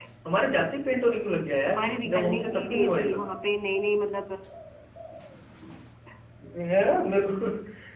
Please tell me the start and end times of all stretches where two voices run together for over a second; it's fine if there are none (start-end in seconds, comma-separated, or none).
1.6-3.2